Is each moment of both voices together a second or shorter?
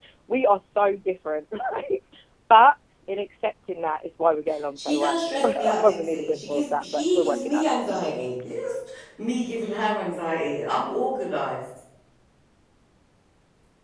No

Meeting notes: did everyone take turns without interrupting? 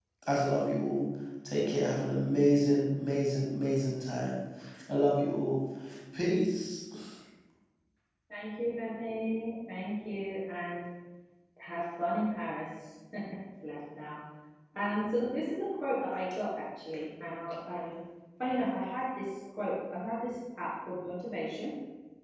Yes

